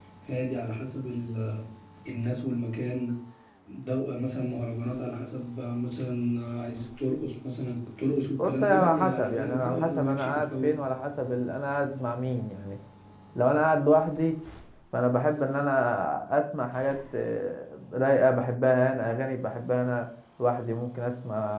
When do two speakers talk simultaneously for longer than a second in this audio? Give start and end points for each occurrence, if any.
8.4-10.8

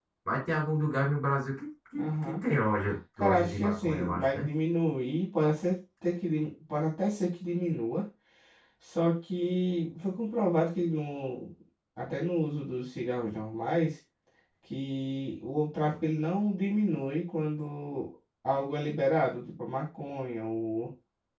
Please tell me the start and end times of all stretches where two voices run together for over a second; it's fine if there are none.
3.2-4.5

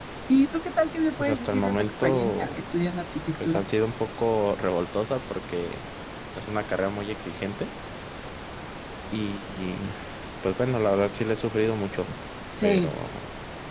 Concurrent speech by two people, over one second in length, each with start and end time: 1.1-2.6

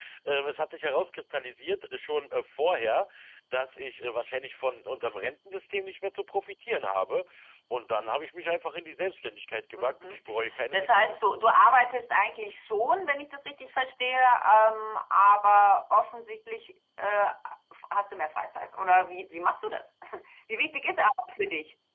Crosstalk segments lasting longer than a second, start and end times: none

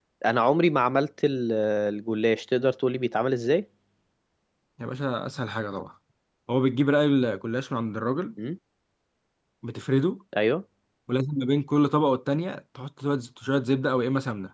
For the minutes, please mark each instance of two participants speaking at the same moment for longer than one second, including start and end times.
none

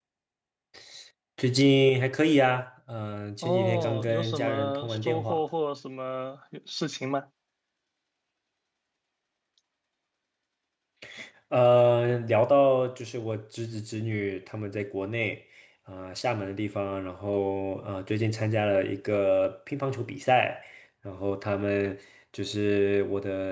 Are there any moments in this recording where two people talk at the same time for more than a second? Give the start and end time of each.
3.4-5.4

